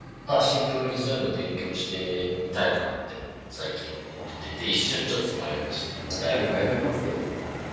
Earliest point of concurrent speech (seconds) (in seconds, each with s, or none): 4.2 s